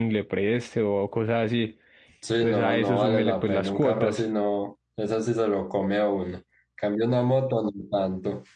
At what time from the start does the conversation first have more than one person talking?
2.4 s

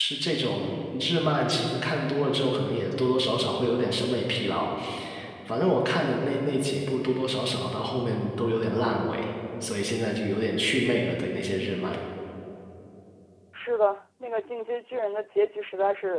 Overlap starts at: none

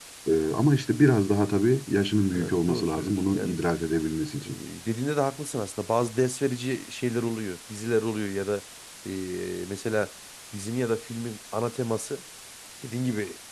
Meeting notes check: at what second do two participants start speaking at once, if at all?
2.3 s

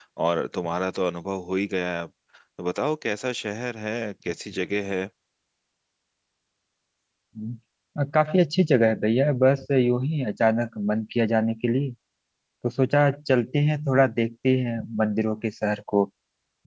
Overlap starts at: none

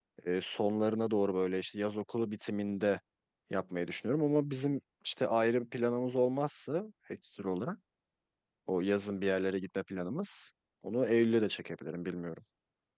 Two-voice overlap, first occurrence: none

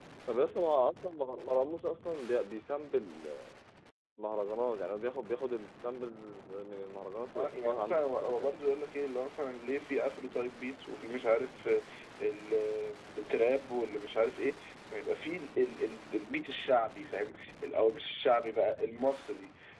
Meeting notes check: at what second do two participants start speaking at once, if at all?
7.3 s

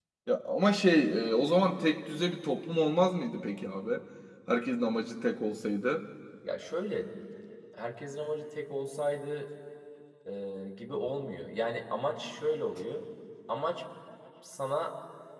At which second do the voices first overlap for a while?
none

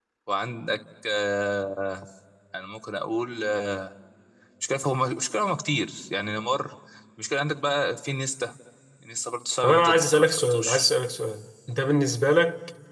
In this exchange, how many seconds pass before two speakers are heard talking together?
9.6 s

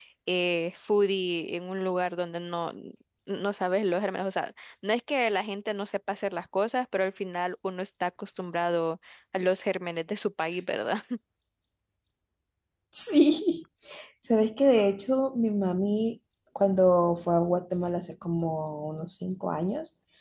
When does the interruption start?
none

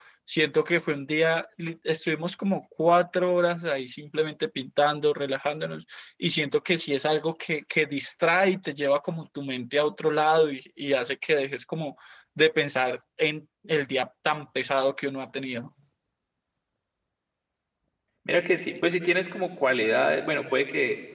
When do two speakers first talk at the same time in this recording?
none

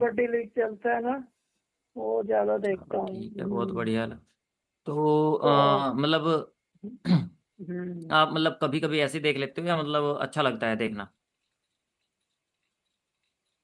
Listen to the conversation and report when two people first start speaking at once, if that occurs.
2.7 s

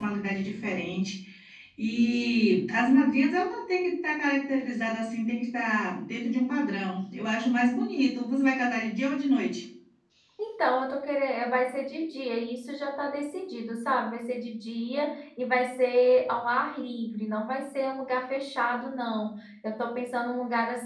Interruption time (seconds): none

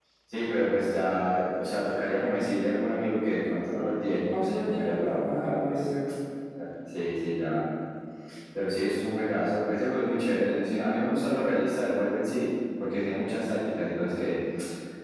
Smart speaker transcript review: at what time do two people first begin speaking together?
4.3 s

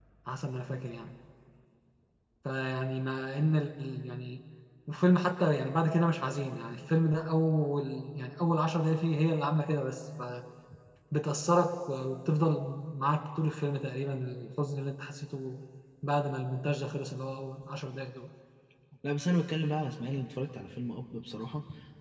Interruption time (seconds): none

